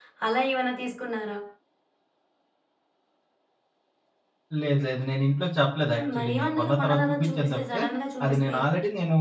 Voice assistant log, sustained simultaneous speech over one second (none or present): present